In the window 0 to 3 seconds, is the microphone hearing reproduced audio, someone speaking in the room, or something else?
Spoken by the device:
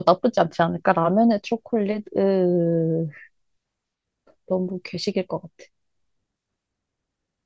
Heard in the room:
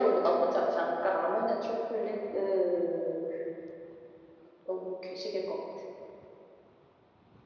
echo only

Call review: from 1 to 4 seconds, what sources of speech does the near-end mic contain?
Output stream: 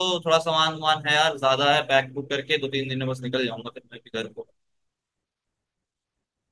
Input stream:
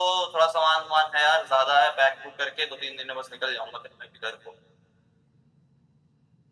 echo only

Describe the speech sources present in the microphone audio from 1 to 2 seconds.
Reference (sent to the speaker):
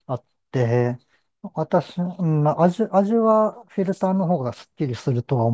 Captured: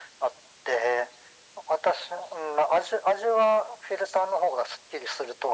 echo only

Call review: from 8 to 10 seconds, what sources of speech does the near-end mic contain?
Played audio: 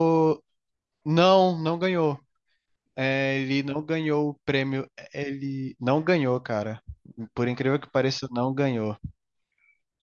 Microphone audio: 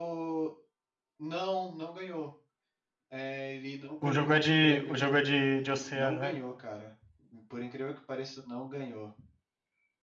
echo only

